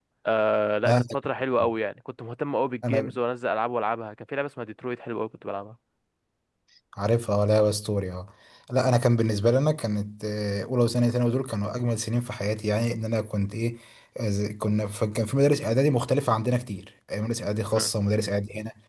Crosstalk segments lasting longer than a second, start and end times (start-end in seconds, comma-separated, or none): none